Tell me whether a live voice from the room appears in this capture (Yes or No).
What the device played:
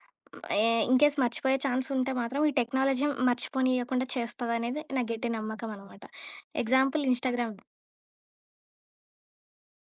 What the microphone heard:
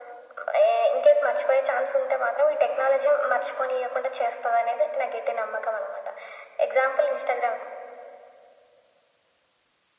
No